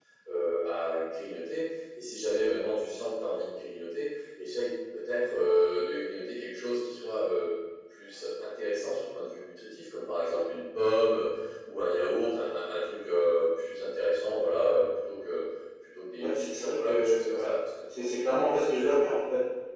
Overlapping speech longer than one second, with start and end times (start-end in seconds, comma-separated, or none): 16.2-17.5